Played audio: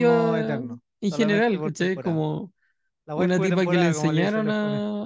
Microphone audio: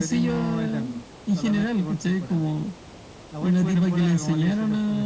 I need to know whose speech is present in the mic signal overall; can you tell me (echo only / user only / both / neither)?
echo only